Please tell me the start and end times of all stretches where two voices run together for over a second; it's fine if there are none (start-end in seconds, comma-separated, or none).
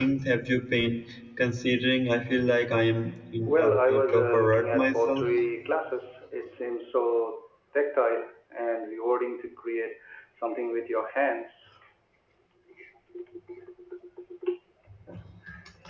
3.5-5.3